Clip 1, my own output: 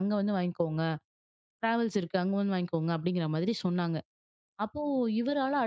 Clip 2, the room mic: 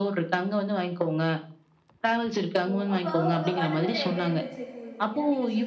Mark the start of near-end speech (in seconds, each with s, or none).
2.7 s